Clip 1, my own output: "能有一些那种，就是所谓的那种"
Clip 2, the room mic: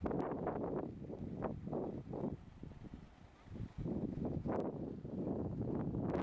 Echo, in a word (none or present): none